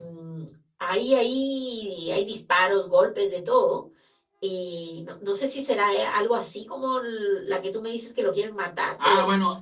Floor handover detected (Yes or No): Yes